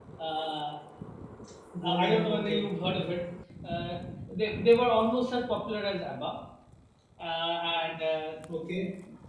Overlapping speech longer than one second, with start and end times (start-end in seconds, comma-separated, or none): 1.8-3.2